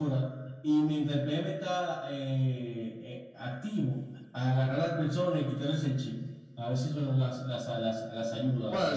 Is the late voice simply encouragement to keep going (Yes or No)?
No